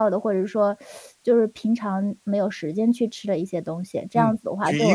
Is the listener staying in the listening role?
No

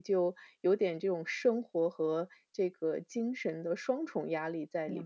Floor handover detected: Yes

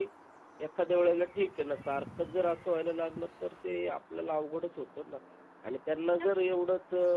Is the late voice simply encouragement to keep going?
Yes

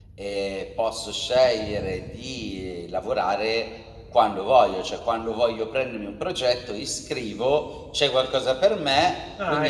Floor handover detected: No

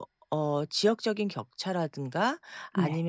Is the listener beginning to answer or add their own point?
No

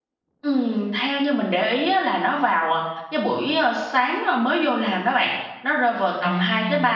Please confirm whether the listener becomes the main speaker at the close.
No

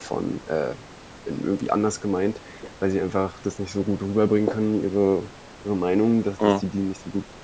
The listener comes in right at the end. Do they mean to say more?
No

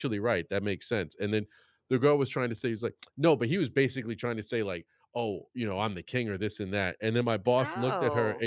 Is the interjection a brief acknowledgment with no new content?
Yes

